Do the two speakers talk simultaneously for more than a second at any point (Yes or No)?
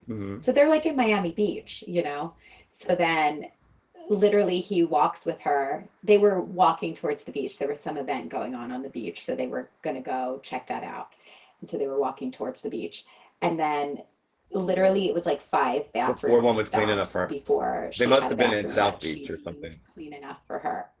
Yes